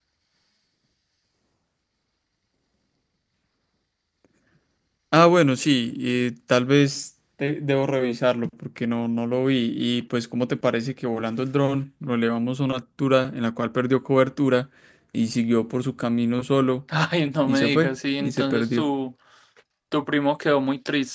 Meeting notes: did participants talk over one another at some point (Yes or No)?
Yes